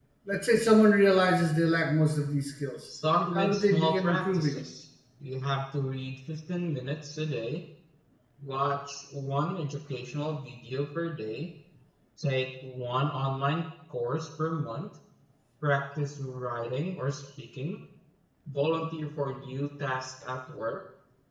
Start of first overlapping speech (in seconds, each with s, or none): 3.4 s